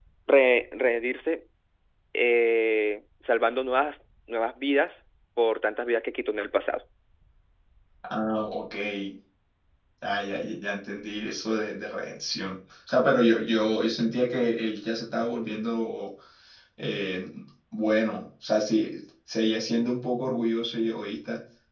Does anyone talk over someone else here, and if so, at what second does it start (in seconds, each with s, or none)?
none